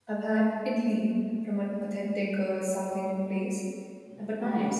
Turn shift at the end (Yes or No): No